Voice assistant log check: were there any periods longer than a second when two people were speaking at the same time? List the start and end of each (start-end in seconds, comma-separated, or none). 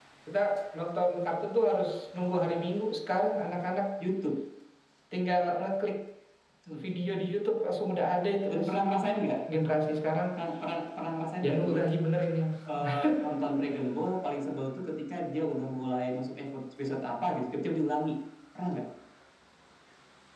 none